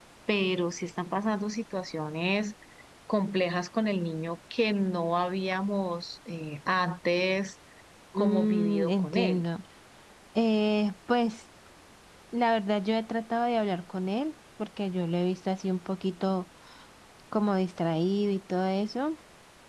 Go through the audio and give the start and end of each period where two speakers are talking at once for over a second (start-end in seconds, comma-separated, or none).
8.2-9.4